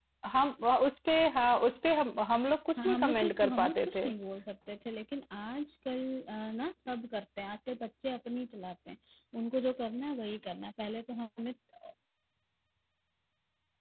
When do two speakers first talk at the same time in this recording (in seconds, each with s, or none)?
2.8 s